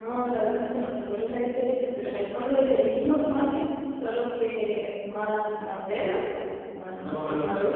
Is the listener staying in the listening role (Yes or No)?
No